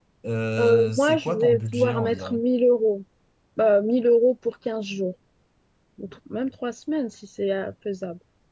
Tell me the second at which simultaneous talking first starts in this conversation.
0.6 s

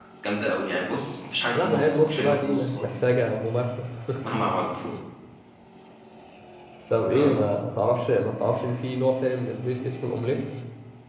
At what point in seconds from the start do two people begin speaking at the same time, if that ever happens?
1.5 s

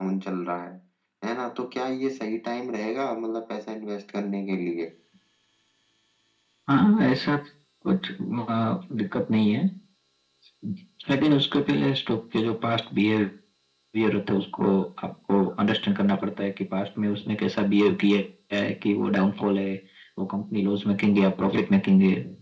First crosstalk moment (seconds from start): none

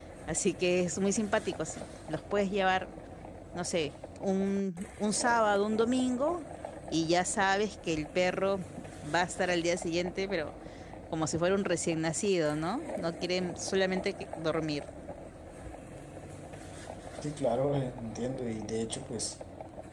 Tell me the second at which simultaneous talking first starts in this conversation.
none

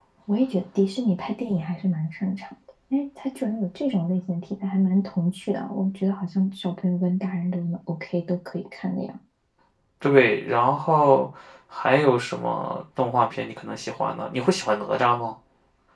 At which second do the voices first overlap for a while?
none

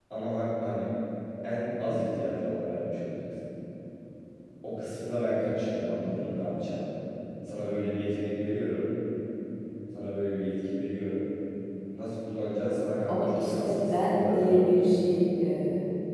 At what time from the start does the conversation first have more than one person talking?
13.1 s

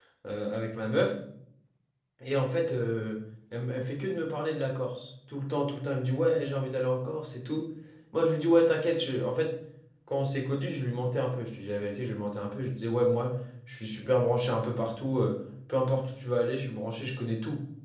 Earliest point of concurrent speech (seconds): none

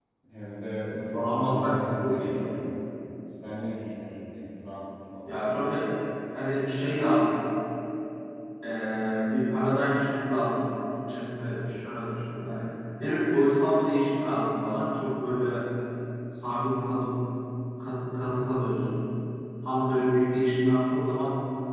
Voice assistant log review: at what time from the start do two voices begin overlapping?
1.1 s

